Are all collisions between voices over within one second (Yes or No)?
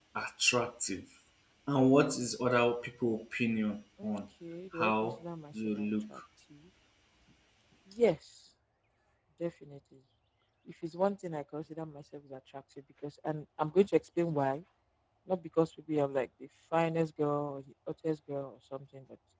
Yes